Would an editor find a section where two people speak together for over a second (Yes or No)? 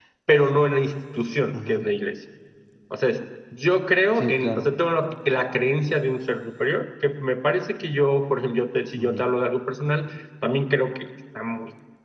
No